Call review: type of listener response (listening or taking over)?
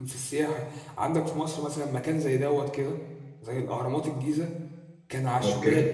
listening